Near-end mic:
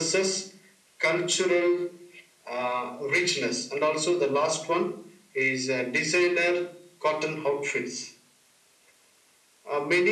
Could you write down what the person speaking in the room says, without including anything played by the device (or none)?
none